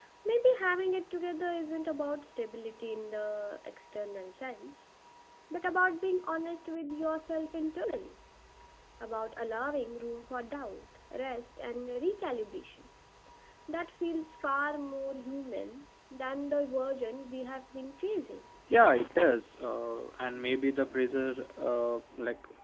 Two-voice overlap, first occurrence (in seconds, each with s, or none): none